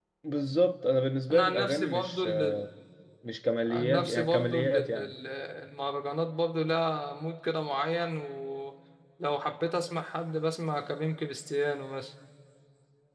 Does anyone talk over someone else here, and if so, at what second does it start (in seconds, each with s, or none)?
1.3 s